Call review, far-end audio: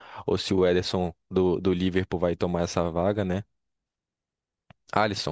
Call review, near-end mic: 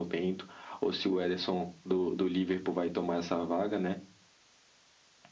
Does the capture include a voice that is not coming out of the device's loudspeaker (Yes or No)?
No